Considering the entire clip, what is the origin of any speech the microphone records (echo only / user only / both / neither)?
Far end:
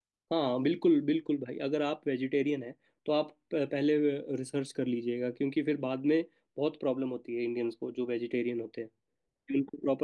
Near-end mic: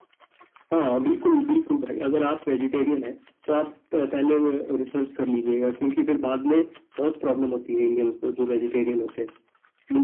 echo only